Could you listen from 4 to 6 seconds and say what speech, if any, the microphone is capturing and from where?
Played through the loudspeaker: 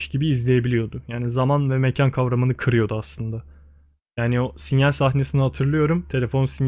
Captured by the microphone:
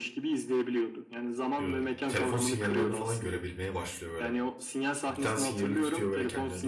both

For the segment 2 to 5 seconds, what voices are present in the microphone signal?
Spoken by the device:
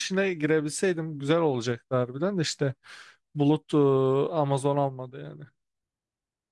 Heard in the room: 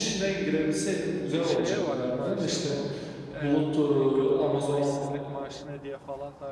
both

